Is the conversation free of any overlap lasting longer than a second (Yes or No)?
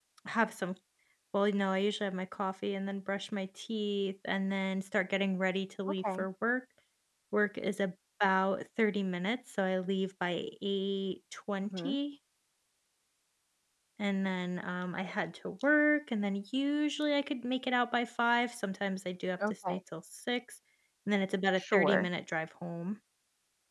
Yes